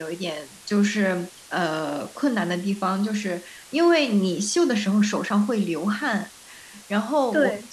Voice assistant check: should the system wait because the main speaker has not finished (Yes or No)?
Yes